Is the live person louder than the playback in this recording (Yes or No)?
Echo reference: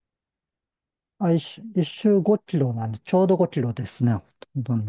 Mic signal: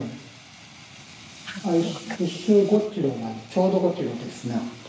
No